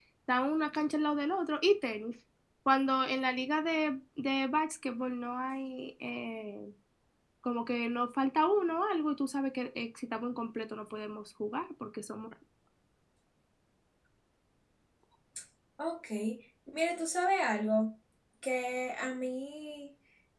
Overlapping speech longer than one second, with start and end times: none

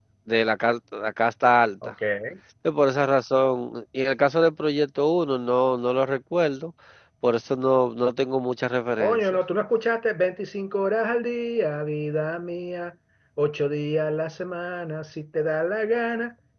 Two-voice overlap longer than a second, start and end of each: none

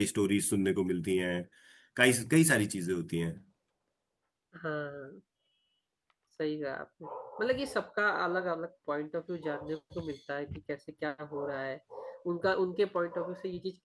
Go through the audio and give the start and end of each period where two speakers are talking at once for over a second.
none

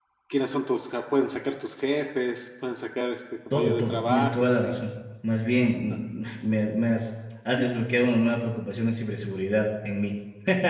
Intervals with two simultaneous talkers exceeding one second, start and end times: 3.5-4.7

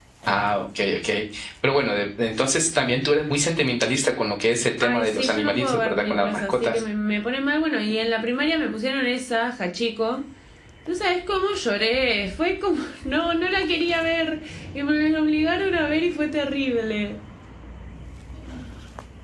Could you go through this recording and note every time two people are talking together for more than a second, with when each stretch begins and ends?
4.8-6.8

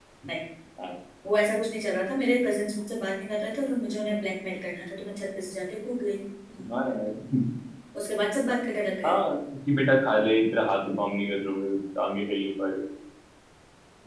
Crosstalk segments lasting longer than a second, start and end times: none

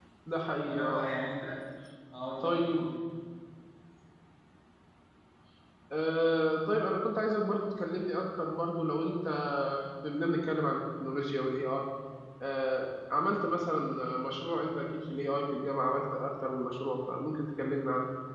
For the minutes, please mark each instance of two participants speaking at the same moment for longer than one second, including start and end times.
none

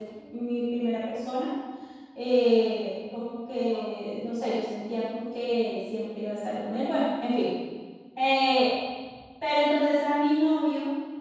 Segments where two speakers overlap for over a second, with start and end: none

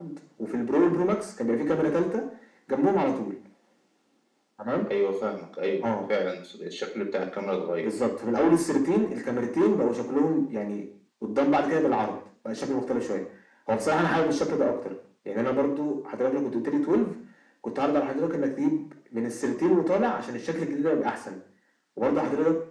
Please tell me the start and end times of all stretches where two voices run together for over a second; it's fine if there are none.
none

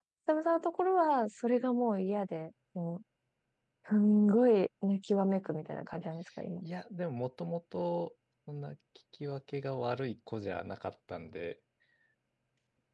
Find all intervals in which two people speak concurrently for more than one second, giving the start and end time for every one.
none

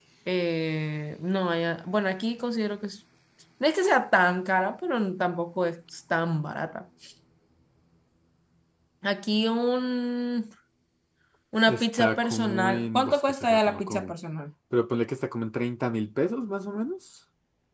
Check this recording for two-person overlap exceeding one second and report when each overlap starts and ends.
11.7-14.1

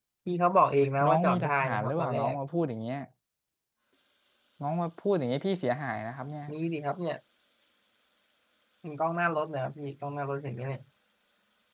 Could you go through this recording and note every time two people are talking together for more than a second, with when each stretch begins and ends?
1.1-2.4

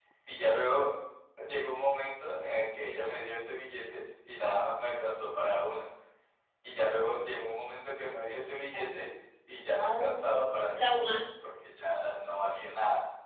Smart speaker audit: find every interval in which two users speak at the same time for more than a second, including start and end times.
9.8-11.2

